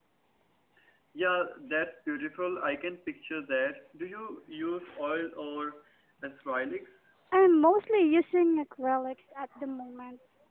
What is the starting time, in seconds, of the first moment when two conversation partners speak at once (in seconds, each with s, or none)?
none